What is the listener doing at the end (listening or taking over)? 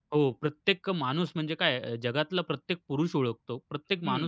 taking over